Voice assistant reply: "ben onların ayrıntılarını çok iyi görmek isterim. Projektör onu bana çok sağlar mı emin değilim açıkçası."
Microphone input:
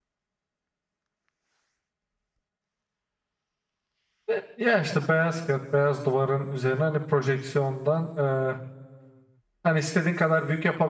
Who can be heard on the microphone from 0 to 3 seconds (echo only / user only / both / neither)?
neither